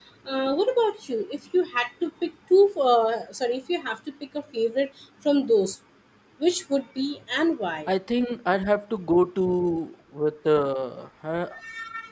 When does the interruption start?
none

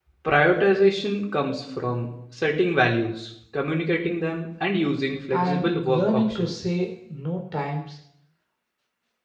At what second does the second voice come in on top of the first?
5.3 s

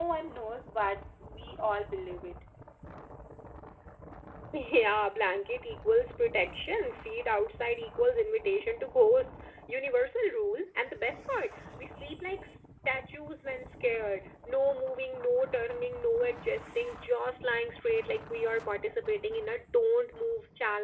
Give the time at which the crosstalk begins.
none

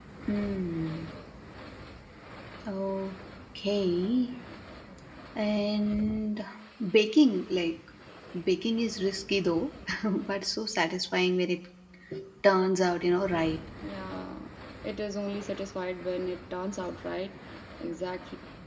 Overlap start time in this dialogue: none

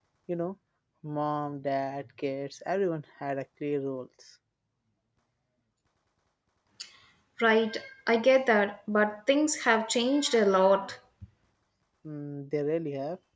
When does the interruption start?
none

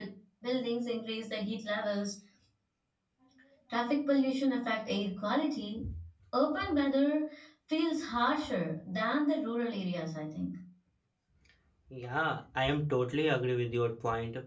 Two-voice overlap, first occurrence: none

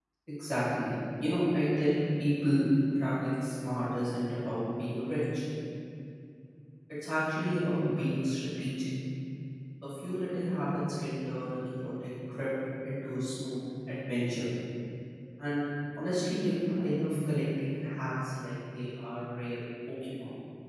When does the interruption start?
none

